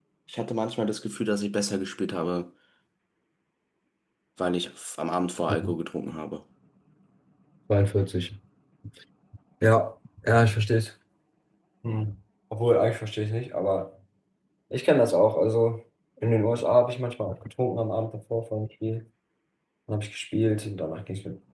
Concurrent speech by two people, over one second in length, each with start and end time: none

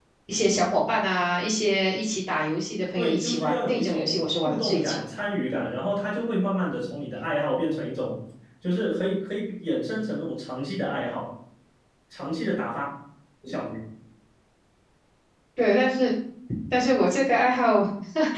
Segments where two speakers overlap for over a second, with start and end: 3.0-5.1

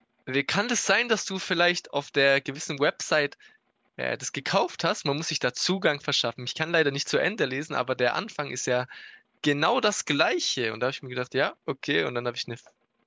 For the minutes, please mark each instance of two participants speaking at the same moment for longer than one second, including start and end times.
none

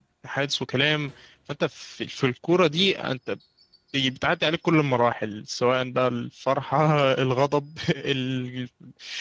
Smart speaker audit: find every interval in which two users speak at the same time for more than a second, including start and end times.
none

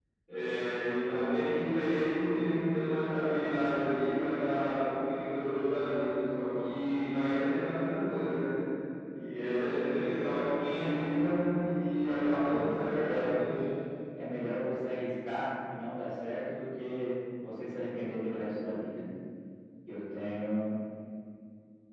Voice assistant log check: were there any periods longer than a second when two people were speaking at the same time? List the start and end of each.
12.0-13.4

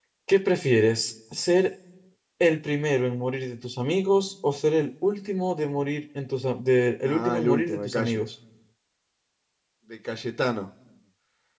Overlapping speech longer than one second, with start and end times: 7.0-8.2

